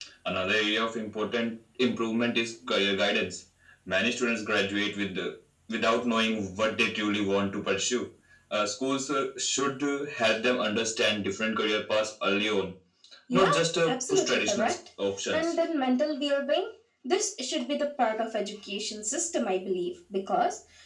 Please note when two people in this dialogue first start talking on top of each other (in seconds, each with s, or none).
13.3 s